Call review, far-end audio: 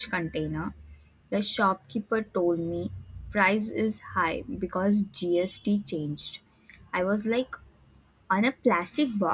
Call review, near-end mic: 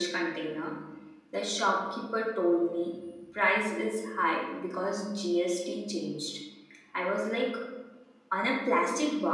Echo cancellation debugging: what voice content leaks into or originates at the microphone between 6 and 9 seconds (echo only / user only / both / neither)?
echo only